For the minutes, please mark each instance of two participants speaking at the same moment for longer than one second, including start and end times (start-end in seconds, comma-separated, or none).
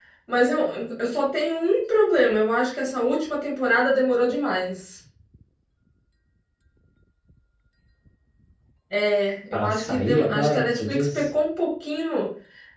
9.5-11.3